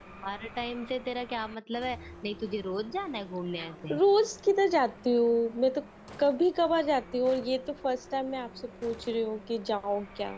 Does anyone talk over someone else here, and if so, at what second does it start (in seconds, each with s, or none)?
none